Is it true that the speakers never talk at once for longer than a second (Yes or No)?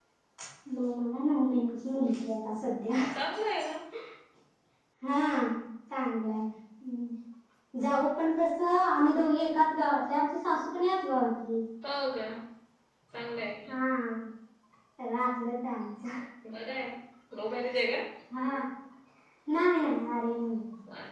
Yes